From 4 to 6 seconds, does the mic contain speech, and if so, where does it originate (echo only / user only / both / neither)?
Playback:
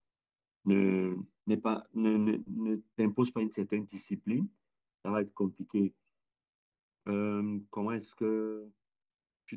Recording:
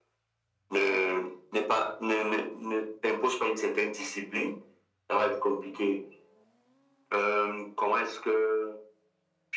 echo only